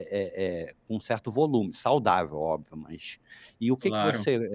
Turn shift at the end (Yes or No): No